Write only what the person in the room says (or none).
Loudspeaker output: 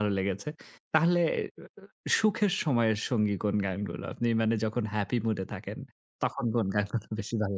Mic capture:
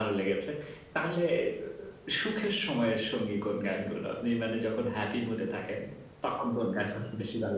none